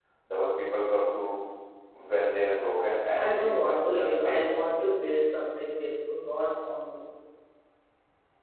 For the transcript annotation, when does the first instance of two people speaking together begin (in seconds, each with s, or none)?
3.2 s